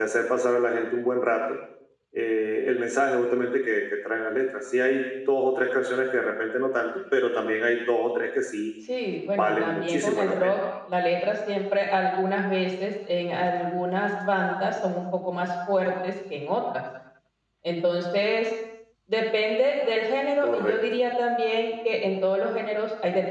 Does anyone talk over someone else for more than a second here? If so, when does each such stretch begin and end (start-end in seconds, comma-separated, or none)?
9.4-10.6